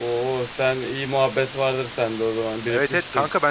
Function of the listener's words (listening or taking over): taking over